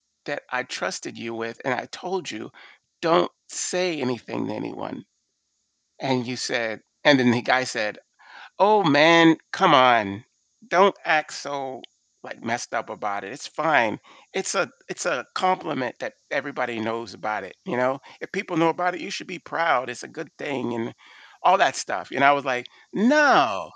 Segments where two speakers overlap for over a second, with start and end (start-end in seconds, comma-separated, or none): none